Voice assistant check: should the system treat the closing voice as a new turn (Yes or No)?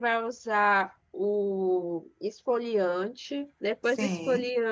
No